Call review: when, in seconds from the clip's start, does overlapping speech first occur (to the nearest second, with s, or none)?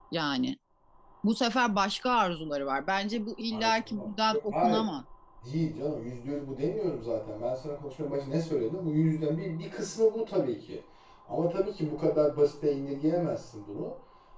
4 s